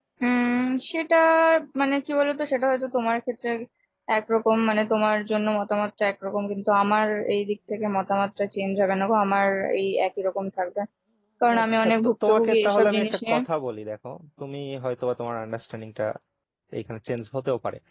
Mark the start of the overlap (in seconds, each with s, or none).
11.6 s